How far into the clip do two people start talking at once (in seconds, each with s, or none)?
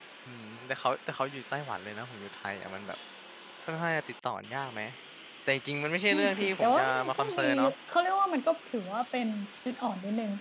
6.1 s